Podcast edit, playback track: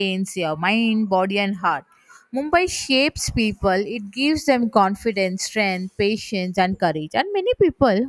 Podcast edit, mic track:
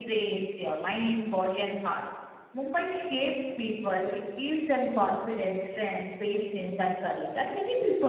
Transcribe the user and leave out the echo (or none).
none